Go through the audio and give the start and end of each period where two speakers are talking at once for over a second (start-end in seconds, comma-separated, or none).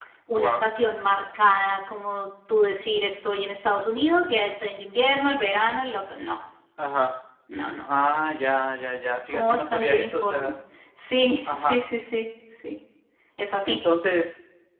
9.3-10.6